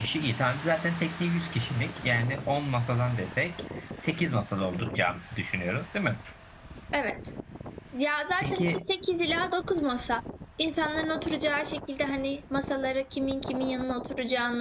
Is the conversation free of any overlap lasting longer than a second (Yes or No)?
Yes